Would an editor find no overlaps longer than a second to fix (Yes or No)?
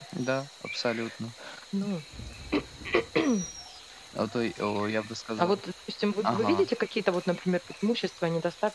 Yes